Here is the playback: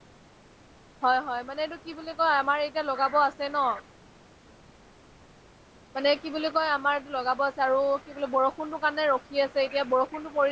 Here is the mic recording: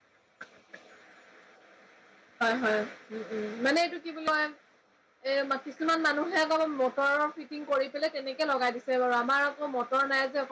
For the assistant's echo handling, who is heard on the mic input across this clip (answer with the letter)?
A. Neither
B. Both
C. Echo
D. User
D